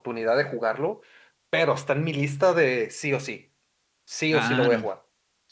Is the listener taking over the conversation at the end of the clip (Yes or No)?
Yes